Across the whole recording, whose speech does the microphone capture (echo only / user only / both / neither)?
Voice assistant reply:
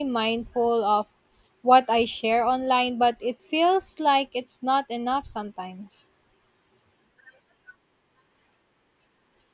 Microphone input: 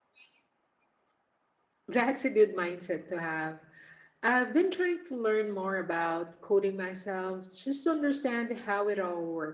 user only